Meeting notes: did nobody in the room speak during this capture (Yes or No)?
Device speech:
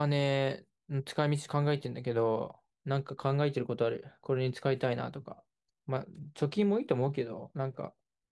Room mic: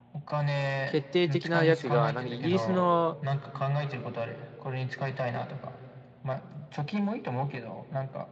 No